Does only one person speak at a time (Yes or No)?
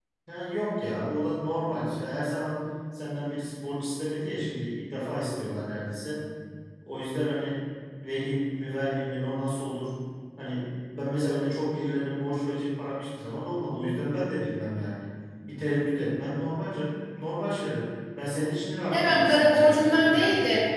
No